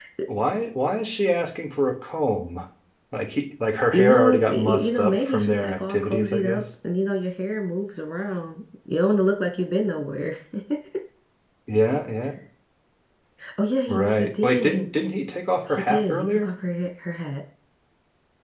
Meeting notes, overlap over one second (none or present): present